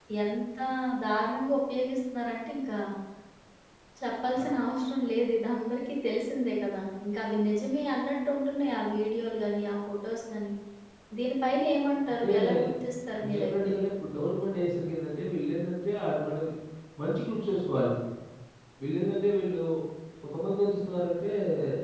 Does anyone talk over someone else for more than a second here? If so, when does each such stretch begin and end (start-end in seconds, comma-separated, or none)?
none